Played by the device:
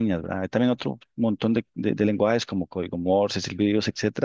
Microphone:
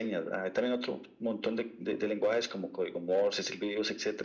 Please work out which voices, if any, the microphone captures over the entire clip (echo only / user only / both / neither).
echo only